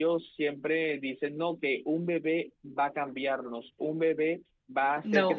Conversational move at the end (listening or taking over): listening